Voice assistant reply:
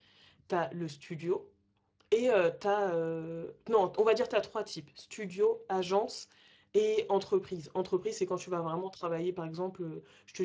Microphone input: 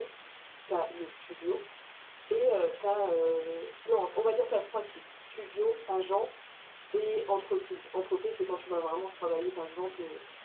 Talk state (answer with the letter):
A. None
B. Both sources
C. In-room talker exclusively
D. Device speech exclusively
D